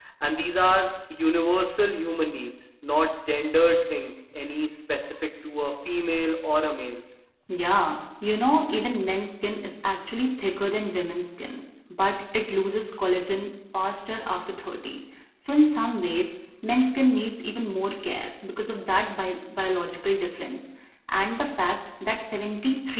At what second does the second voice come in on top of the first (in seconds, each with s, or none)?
none